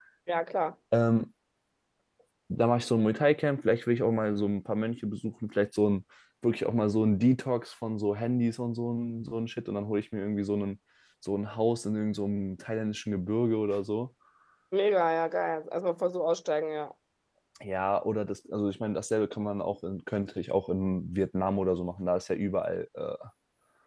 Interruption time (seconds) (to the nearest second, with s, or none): none